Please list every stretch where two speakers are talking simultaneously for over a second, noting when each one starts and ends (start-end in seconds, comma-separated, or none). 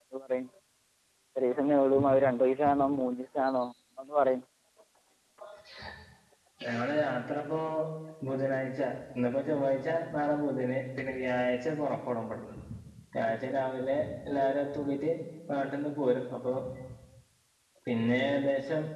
none